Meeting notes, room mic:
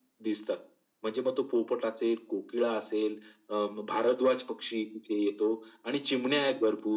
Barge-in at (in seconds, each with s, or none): none